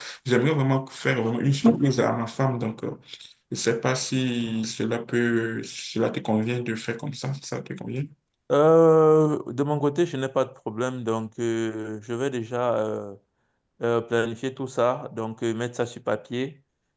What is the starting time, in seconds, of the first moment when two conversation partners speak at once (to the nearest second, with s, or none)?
none